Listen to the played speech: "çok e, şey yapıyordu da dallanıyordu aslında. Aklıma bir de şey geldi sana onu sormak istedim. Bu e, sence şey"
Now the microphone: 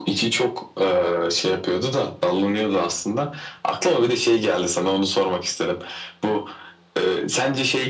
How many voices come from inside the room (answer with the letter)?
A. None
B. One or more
A